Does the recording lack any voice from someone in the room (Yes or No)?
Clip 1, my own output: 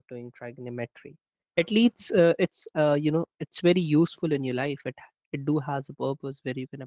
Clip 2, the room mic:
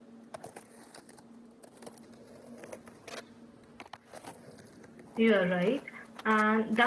No